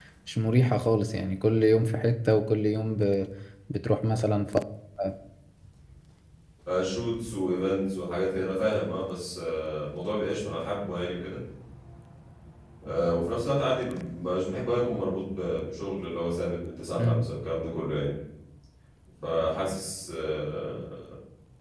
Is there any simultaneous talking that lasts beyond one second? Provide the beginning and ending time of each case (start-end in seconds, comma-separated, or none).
none